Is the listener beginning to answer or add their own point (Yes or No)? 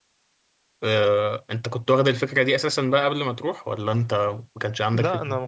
Yes